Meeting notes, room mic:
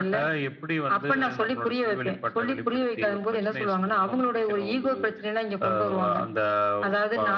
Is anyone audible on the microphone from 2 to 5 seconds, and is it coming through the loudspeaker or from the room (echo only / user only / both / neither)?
echo only